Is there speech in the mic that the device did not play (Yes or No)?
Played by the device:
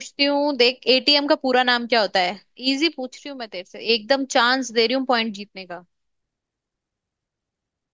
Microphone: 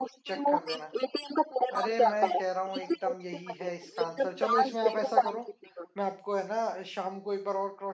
Yes